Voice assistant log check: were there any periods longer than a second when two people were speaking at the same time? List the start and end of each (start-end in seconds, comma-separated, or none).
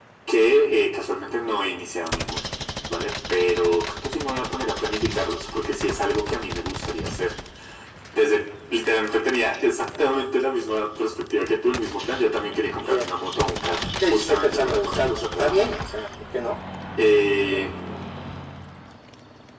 14.1-15.7